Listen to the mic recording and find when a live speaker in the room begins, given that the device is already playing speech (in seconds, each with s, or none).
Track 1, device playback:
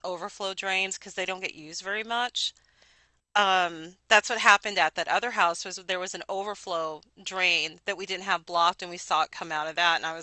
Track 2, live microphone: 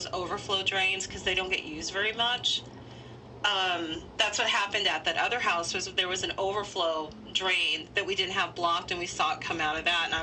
none